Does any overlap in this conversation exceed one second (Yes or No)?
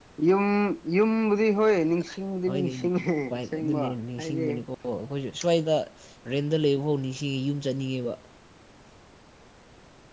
Yes